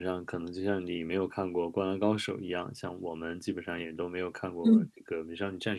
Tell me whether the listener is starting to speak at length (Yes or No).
No